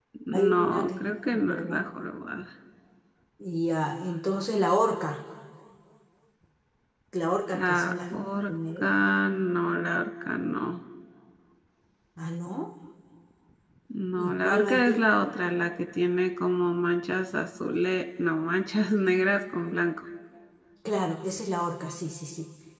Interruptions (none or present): present